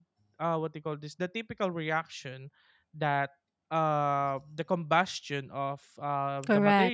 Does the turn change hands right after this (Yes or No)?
No